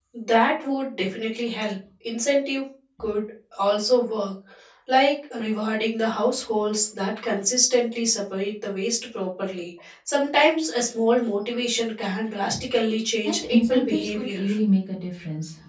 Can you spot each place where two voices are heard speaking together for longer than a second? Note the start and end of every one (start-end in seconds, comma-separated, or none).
13.2-14.5